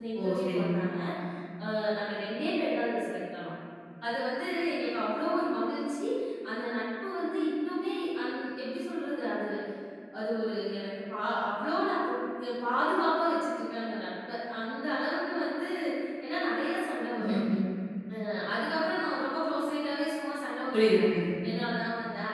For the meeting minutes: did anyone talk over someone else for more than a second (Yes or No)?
No